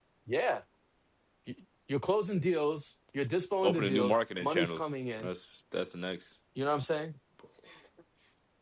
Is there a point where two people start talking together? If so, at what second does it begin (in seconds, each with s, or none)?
3.6 s